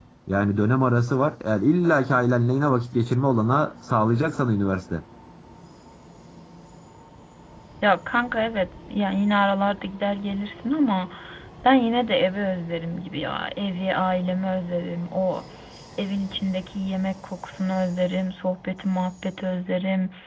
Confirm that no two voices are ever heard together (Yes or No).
Yes